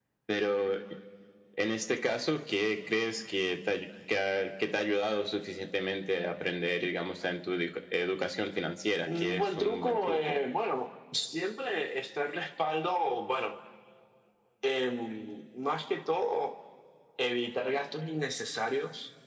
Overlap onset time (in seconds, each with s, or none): 9.0 s